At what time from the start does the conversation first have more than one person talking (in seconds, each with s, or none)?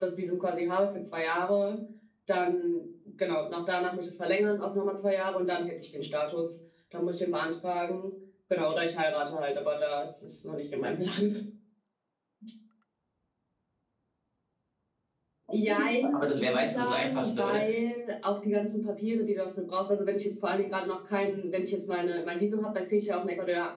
15.7 s